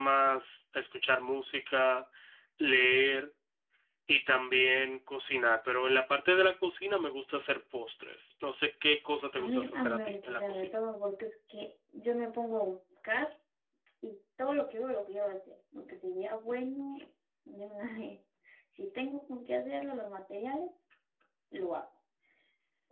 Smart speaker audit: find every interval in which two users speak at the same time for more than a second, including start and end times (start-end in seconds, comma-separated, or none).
9.4-10.8